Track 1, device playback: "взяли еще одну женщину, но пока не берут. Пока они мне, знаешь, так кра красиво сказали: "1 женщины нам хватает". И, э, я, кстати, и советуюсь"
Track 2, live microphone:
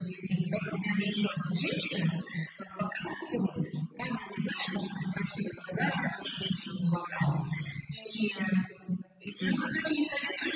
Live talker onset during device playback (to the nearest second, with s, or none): 9 s